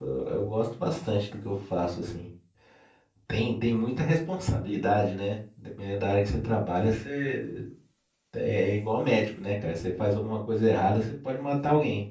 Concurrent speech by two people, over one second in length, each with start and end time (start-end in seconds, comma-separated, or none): none